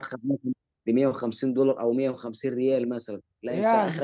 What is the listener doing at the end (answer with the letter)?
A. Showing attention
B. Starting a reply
A